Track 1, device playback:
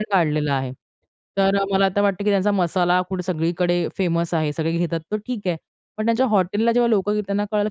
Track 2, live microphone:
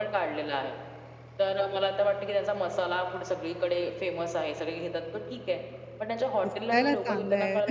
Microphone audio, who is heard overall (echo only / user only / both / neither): both